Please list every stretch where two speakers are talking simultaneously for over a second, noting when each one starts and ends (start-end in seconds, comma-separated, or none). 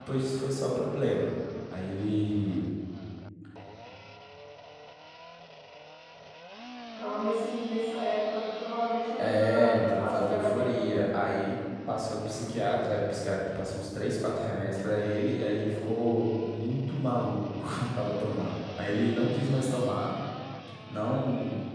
9.2-11.4